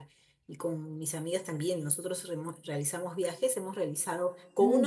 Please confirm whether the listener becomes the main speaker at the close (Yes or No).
No